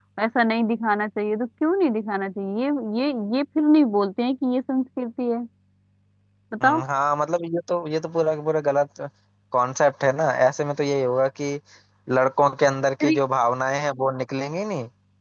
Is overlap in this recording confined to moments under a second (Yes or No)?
Yes